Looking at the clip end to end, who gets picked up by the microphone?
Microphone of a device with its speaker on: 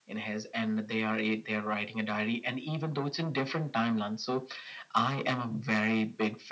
echo only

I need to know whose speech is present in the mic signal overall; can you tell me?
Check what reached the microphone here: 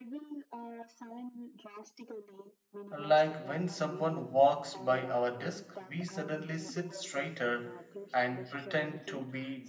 both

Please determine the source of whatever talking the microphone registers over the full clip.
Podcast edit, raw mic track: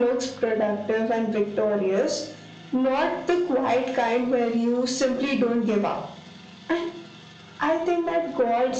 echo only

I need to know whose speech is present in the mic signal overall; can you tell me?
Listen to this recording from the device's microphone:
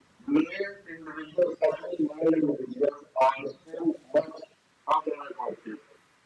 echo only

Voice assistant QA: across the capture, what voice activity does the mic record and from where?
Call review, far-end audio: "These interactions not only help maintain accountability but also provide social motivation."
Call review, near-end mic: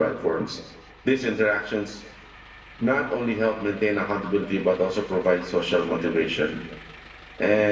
echo only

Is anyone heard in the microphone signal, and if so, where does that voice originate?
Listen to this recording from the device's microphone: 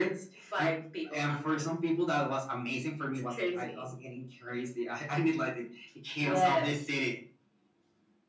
echo only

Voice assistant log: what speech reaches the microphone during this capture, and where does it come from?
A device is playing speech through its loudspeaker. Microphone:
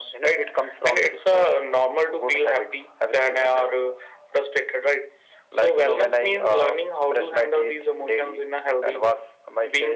echo only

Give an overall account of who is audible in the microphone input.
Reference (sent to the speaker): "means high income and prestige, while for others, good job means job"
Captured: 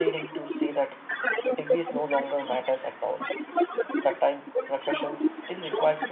both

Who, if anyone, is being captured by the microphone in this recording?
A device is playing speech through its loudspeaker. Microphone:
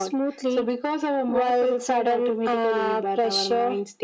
echo only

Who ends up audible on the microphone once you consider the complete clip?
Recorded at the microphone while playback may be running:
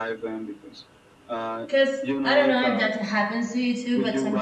both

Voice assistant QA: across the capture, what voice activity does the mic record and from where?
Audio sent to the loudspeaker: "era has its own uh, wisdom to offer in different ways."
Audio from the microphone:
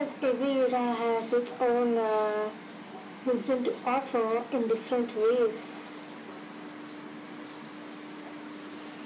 echo only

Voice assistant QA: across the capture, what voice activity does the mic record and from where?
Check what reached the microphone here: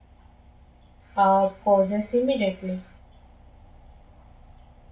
user only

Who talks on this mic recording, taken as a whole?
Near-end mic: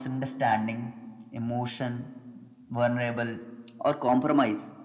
echo only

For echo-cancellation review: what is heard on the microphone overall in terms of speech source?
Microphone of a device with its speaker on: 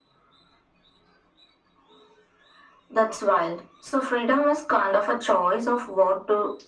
echo only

